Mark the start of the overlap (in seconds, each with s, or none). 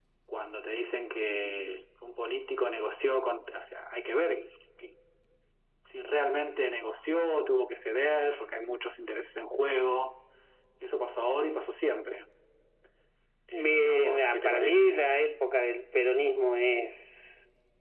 13.5 s